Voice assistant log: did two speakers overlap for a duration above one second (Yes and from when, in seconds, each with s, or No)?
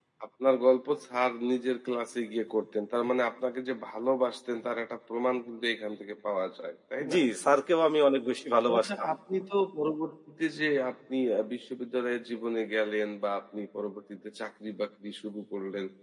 No